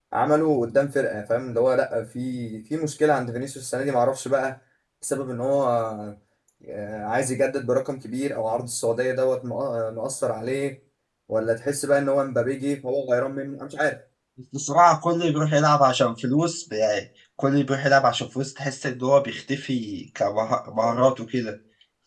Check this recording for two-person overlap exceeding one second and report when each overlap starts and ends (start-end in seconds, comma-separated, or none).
none